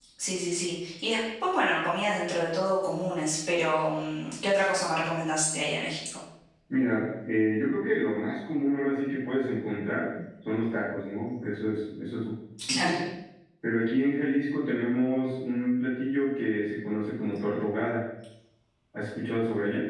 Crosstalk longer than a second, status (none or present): none